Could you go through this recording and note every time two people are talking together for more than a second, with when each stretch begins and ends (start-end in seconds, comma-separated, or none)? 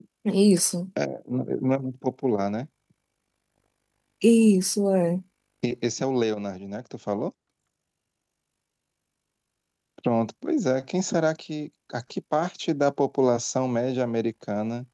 none